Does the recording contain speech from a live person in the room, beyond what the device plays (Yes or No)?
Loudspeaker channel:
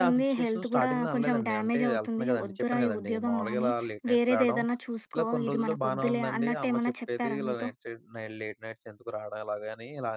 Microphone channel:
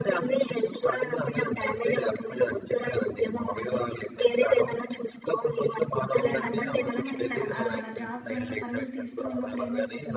Yes